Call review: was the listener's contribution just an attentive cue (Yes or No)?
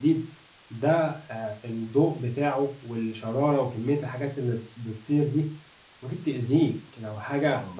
Yes